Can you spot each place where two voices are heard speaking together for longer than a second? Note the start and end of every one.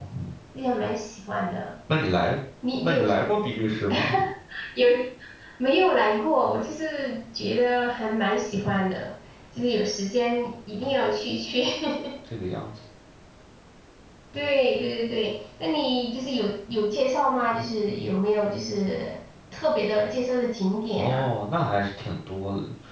none

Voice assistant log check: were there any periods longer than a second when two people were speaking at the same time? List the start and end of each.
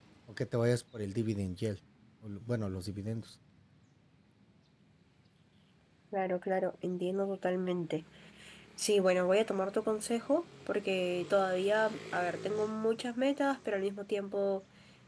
none

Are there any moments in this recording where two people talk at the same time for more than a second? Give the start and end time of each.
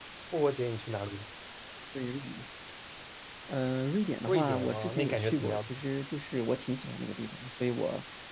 4.3-5.7

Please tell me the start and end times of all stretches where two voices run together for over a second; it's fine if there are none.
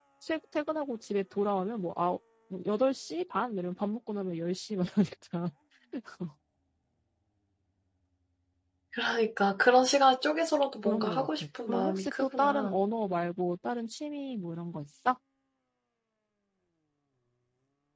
10.8-12.8

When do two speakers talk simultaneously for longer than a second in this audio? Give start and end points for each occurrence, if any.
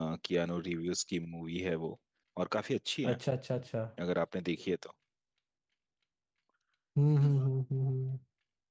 none

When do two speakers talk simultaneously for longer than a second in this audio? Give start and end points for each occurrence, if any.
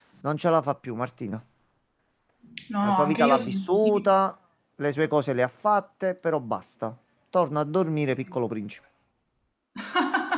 2.9-4.2

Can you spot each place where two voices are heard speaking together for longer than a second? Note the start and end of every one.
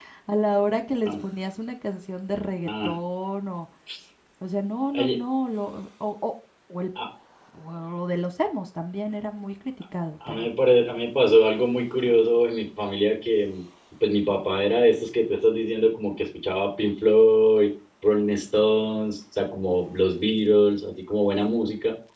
none

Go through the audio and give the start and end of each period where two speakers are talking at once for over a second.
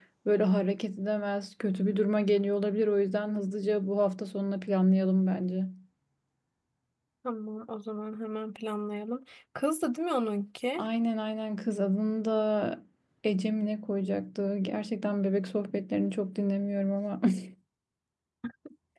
none

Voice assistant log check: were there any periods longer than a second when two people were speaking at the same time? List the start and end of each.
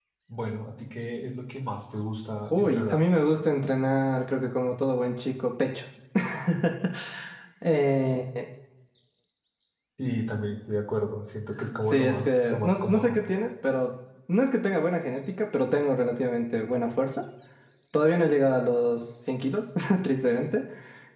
11.9-13.2

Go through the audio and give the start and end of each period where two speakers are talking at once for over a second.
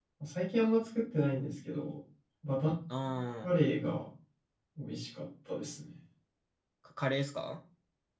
none

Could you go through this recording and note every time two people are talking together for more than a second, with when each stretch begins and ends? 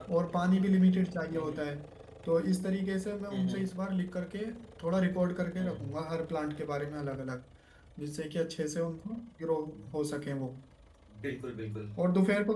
none

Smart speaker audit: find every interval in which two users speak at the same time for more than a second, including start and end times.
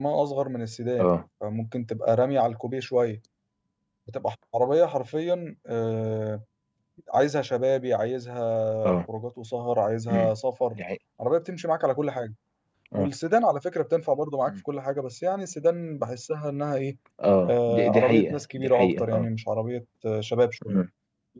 17.5-19.3

